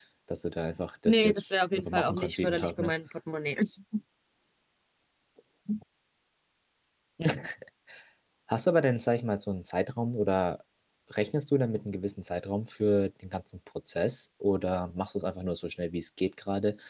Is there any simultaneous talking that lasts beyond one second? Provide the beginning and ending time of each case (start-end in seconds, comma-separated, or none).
1.1-2.9